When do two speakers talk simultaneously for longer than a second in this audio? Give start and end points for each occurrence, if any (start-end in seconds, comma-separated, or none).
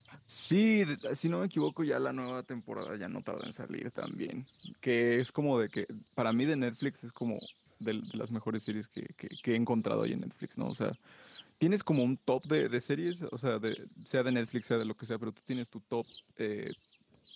none